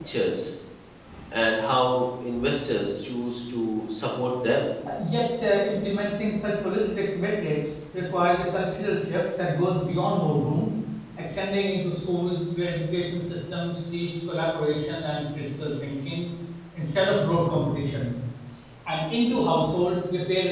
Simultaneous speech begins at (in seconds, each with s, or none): none